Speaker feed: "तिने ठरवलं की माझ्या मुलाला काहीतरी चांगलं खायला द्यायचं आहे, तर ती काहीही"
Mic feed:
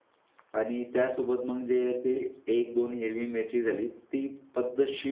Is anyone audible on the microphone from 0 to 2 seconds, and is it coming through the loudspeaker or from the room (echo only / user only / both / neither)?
user only